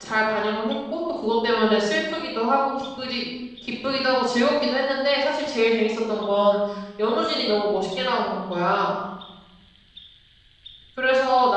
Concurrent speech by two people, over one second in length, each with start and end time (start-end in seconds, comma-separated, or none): none